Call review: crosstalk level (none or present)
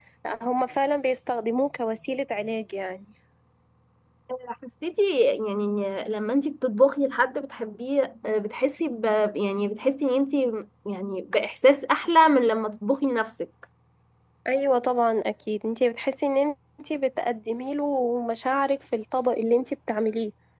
none